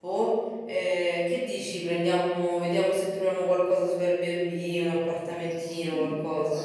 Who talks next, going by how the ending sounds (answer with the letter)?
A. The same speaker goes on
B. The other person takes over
B